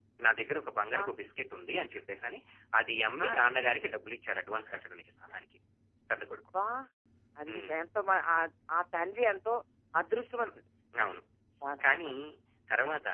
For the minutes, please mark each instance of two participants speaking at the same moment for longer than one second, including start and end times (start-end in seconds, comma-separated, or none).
none